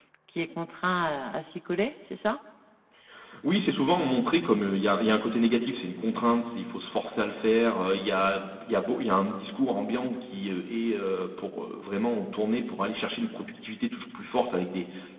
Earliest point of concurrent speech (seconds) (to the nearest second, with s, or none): none